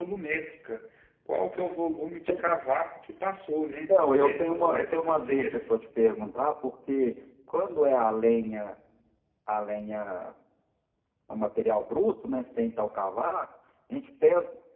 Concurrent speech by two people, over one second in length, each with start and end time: 3.9-5.7

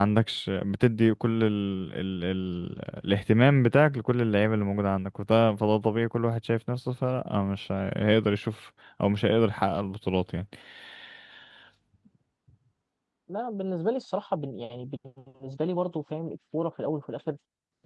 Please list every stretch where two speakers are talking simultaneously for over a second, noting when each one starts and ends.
none

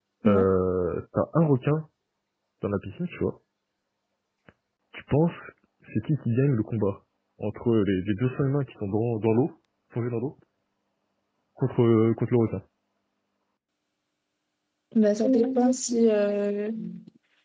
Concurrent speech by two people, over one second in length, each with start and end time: none

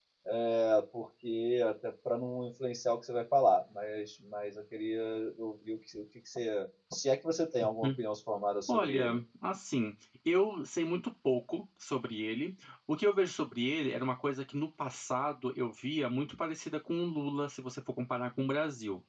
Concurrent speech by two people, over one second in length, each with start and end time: none

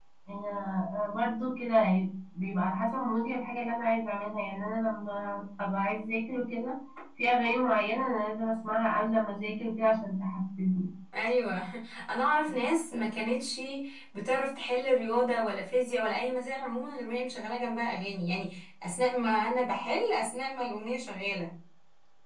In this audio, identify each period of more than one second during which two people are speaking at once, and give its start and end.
none

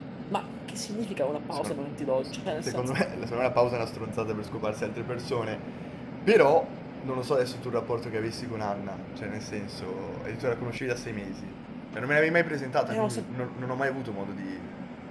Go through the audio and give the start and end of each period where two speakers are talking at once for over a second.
none

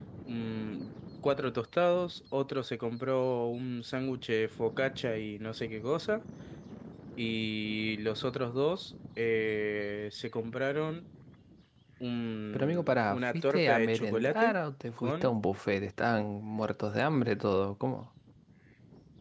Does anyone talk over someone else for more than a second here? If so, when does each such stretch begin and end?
12.5-14.5

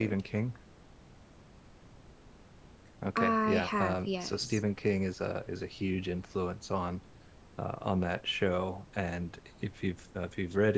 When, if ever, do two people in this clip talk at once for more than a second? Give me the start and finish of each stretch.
3.2-4.6

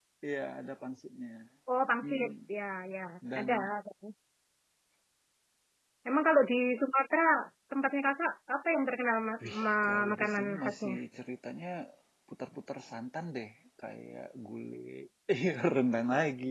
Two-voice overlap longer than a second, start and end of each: 9.4-10.9

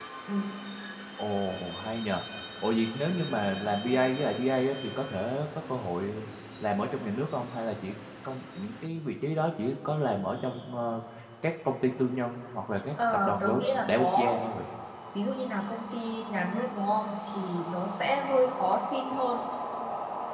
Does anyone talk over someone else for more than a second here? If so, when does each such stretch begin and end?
13.1-14.4

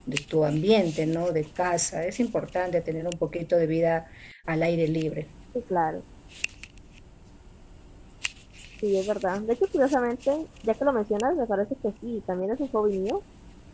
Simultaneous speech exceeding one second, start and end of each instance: none

